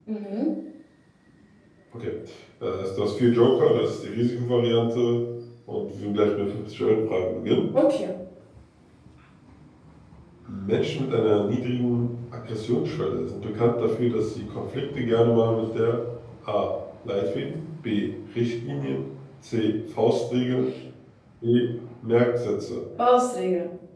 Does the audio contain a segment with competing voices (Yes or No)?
No